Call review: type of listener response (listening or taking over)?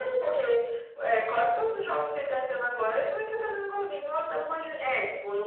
taking over